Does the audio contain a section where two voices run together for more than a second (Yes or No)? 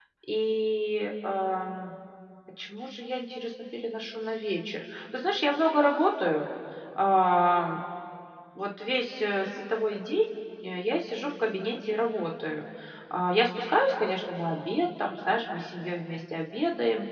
No